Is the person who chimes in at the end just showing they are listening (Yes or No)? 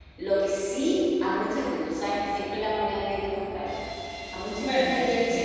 Yes